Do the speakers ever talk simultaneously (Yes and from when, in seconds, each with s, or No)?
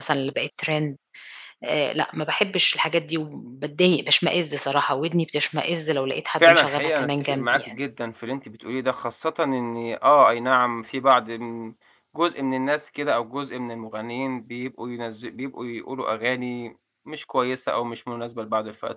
Yes, from 6.4 s